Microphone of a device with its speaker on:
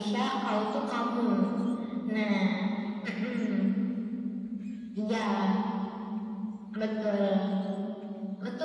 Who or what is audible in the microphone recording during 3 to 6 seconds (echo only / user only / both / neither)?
echo only